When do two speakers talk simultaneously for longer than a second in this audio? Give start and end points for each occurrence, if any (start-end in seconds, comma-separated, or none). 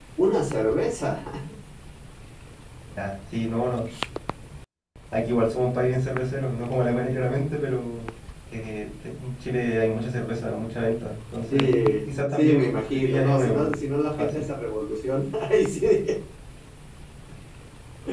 11.5-13.7